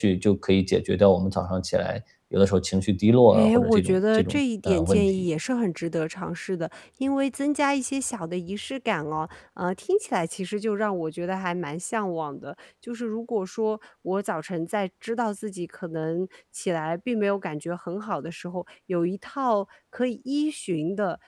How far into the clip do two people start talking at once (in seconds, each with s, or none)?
3.3 s